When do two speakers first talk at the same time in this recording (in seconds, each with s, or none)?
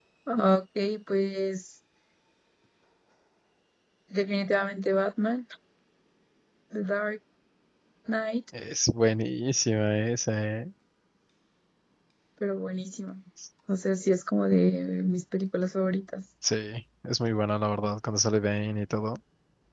none